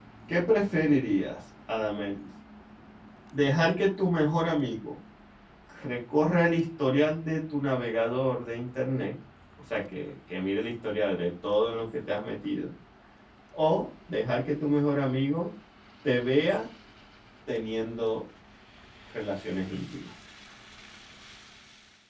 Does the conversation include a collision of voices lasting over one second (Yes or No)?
No